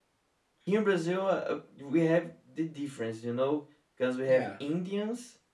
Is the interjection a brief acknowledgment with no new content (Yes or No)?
Yes